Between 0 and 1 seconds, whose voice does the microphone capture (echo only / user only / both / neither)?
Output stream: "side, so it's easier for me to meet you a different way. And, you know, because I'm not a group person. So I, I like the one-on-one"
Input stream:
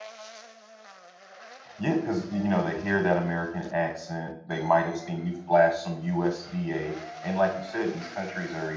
neither